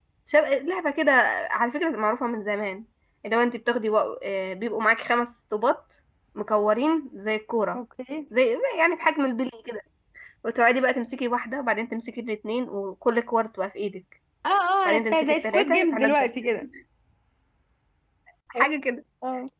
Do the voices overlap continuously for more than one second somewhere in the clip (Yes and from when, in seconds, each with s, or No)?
Yes, from 14.8 s